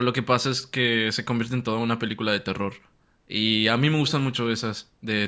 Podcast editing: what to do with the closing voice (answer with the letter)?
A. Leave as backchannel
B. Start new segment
A